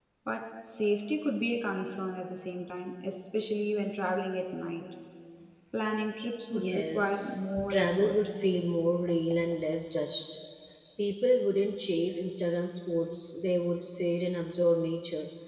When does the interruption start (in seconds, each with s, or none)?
6.5 s